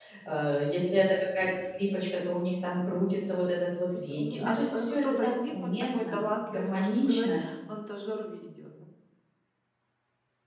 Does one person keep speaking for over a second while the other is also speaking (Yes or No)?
Yes